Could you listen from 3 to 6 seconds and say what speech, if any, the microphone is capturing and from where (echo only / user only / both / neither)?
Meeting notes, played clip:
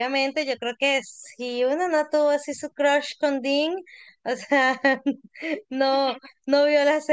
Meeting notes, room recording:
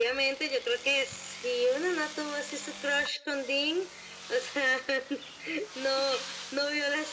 echo only